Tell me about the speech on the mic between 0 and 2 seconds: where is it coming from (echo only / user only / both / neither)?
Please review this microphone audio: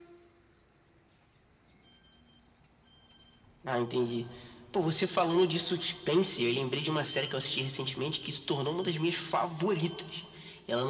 neither